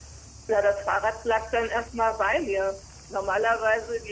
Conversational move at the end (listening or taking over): listening